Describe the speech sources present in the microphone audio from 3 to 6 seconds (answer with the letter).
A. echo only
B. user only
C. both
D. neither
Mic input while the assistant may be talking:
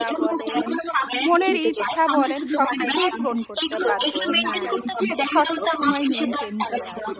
C